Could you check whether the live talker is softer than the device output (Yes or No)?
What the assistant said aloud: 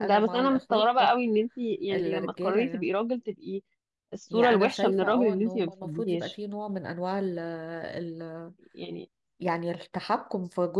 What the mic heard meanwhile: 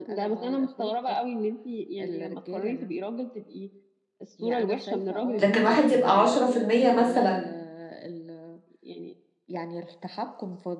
No